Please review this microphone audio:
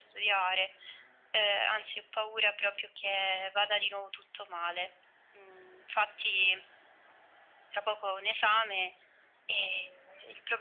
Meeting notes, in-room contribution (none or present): none